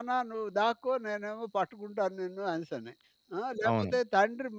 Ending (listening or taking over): listening